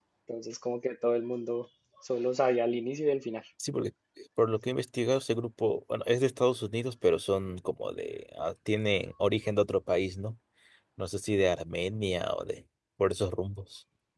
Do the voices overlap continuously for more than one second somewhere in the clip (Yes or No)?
No